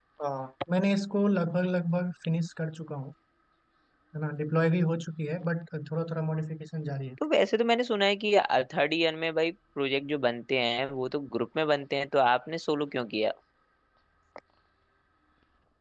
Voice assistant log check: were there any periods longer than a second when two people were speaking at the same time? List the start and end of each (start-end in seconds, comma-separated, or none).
none